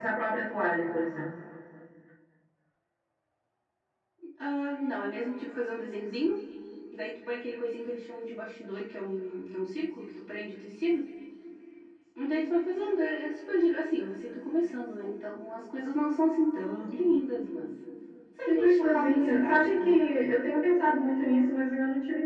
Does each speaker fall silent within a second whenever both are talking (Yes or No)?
No